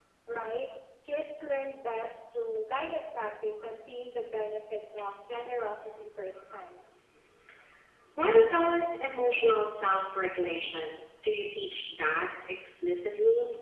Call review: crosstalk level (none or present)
none